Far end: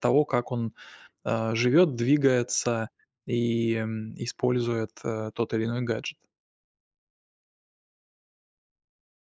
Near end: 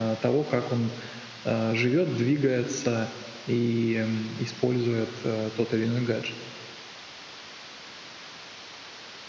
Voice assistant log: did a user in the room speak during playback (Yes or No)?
No